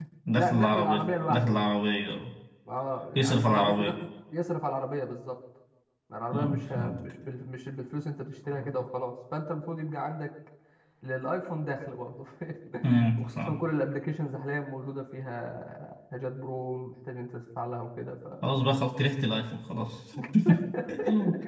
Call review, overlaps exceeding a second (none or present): present